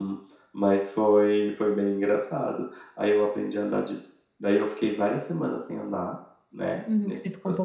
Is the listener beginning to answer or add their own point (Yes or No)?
Yes